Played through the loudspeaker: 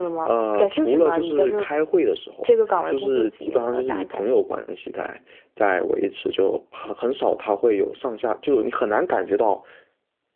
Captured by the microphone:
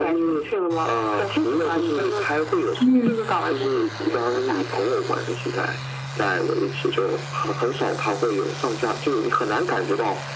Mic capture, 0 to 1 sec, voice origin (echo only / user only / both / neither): echo only